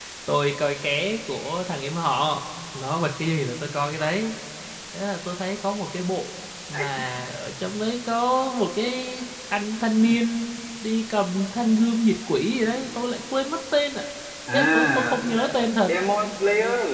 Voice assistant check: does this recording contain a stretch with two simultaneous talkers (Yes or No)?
Yes